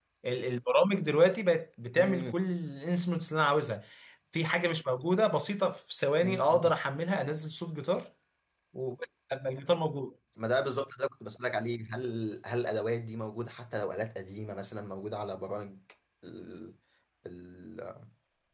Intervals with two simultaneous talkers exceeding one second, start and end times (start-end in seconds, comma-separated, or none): none